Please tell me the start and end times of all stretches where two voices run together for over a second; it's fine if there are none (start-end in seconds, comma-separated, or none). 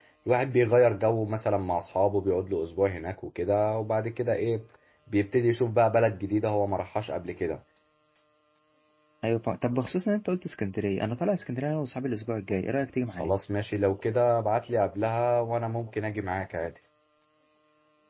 none